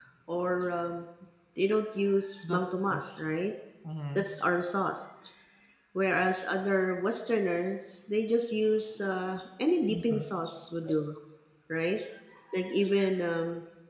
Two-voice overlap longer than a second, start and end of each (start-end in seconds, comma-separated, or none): none